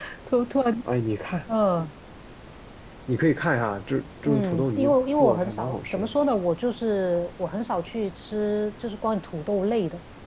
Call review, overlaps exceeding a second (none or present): present